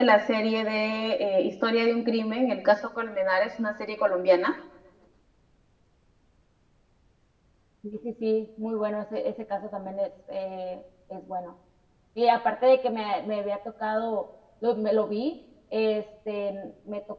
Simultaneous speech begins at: none

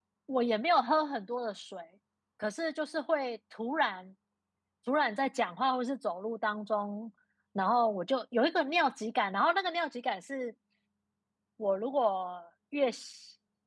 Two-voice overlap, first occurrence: none

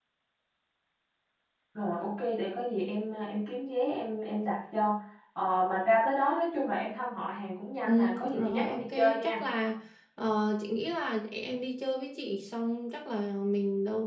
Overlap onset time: 7.9 s

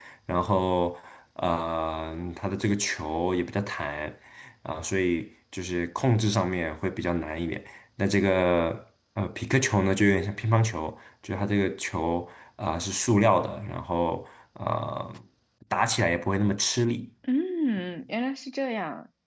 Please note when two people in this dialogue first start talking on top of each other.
none

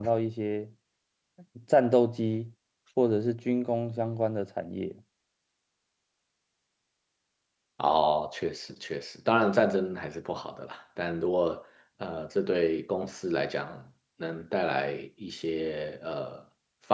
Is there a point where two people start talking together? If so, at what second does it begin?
none

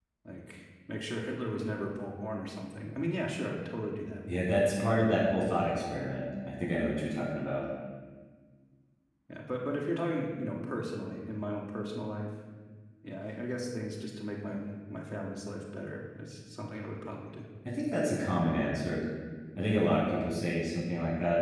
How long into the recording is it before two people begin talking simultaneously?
none

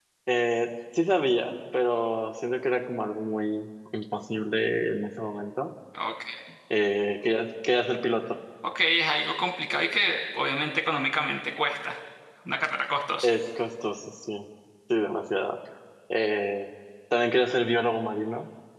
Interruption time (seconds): none

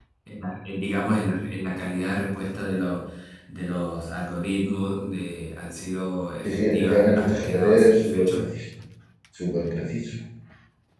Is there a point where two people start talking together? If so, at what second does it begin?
6.5 s

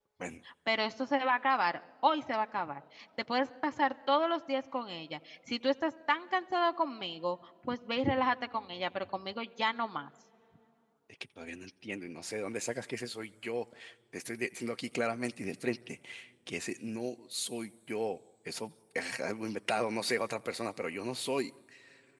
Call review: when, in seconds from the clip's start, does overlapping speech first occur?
none

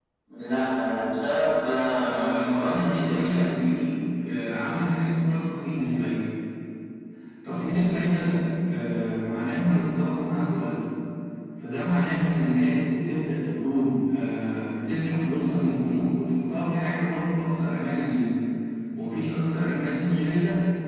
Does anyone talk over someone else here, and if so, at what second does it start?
2.0 s

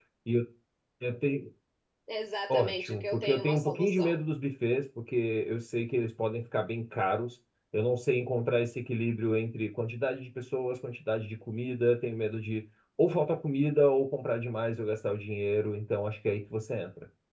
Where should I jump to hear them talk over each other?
2.5 s

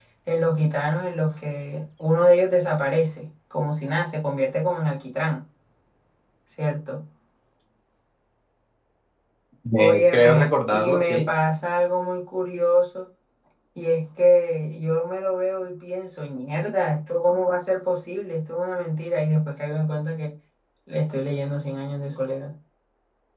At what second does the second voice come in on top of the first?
9.8 s

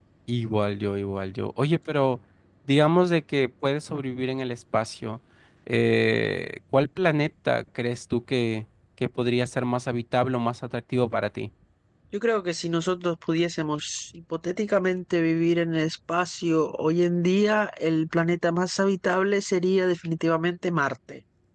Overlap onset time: none

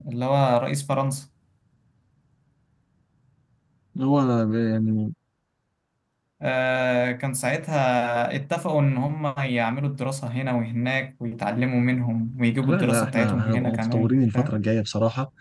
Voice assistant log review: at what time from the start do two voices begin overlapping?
12.6 s

